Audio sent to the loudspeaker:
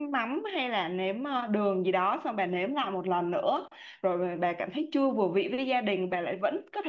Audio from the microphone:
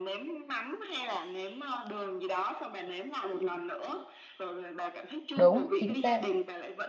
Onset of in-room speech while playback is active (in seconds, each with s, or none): 5.3 s